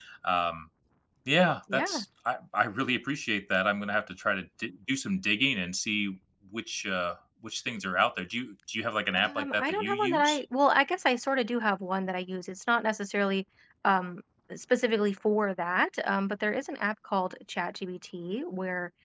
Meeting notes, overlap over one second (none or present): present